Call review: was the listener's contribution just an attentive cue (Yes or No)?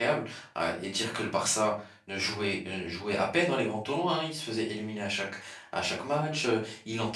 Yes